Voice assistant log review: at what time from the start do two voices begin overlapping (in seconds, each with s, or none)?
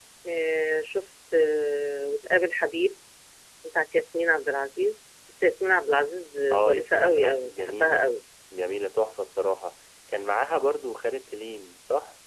6.5 s